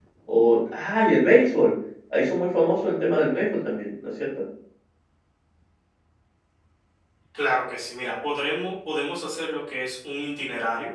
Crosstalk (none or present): none